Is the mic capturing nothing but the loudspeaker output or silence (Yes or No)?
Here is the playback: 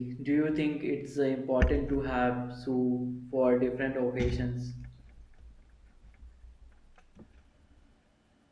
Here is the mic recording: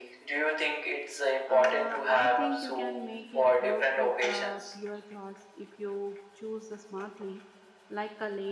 No